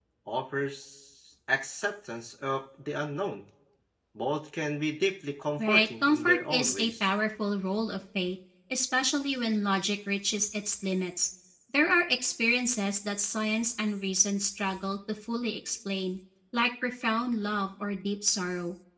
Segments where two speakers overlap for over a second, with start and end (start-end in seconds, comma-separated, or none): 5.6-7.1